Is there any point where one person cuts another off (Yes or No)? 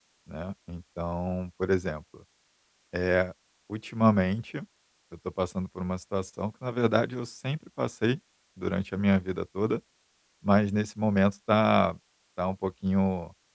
No